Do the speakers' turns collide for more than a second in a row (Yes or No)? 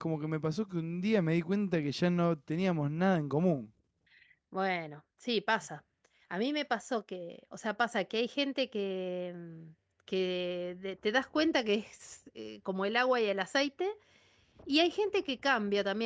No